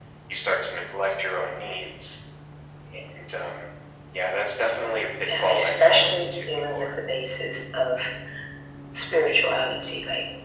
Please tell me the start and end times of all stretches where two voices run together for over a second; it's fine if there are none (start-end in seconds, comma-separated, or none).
5.4-6.9